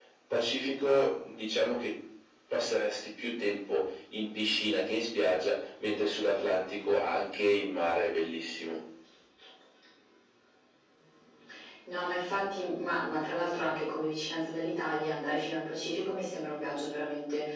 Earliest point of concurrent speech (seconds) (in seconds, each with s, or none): none